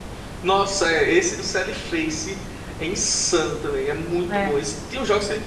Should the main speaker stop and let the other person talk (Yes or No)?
No